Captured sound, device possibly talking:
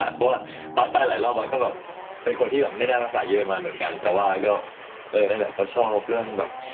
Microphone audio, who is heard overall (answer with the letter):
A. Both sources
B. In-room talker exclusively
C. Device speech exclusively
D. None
C